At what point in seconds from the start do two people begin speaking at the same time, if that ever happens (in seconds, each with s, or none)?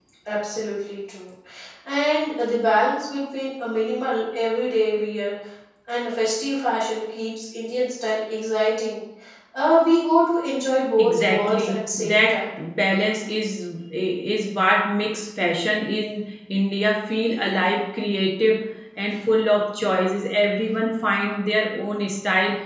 11.0 s